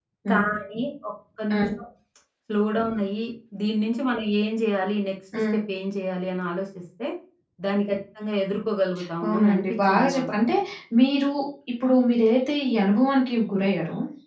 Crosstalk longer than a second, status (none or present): present